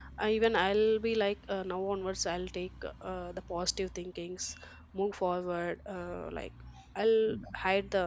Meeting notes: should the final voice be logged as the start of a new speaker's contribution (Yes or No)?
No